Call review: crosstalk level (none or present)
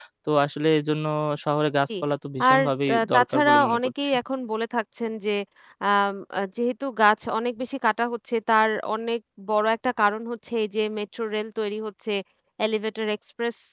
present